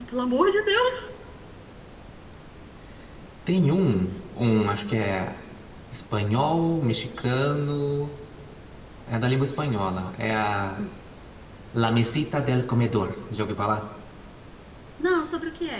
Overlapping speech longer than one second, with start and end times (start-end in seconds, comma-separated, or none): none